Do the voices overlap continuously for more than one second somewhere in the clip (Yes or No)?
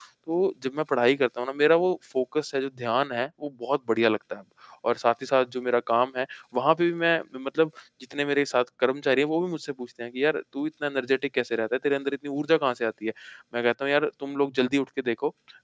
No